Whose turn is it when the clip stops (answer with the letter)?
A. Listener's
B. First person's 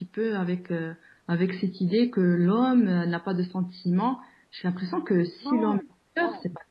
A